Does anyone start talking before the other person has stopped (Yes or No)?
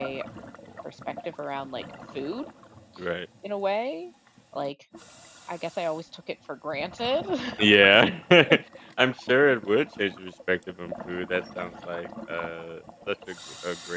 No